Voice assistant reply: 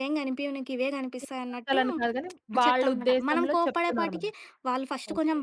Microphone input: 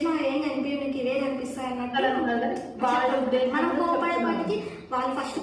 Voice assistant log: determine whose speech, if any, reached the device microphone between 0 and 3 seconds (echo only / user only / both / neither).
echo only